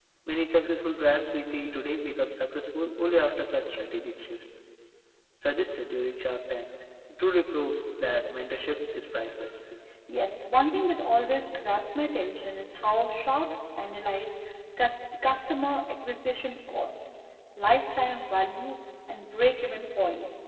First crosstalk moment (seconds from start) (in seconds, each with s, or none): none